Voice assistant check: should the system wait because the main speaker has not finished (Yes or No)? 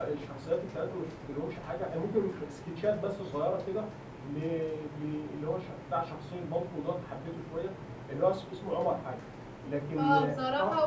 No